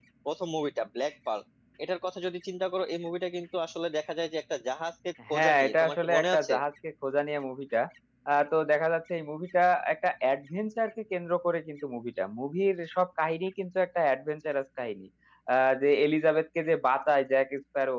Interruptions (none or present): present